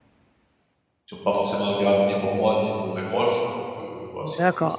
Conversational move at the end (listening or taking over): taking over